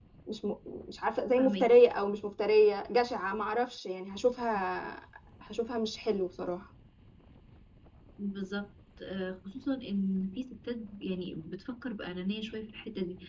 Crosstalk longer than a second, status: none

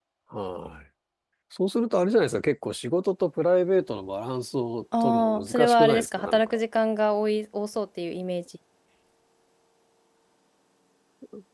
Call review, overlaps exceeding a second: present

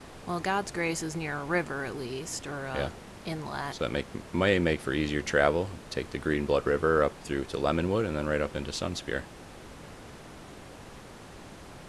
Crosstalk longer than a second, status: none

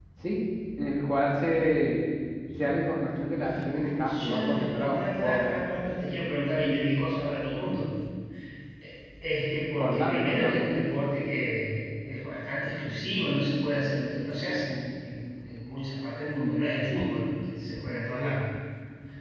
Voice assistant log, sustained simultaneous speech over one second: present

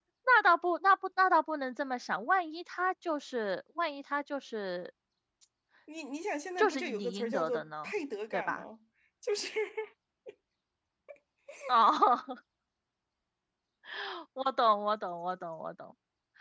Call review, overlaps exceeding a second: present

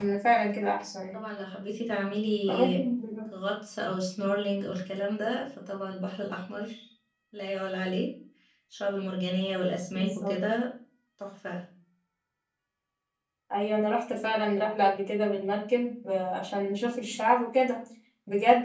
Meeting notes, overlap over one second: none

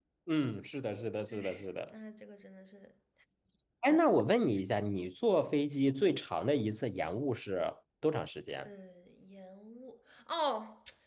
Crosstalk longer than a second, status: none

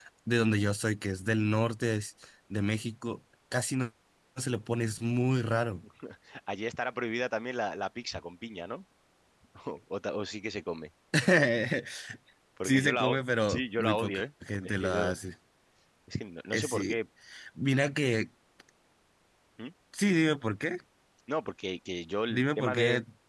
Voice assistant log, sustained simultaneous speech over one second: present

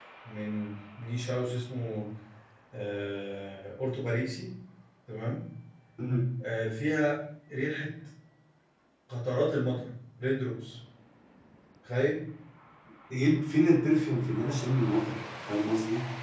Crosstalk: none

